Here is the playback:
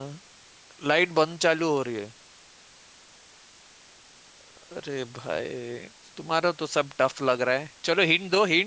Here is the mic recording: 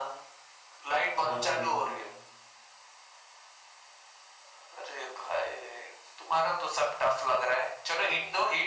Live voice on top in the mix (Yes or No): No